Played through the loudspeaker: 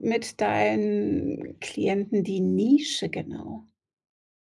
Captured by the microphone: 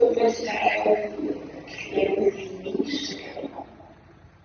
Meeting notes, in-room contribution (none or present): none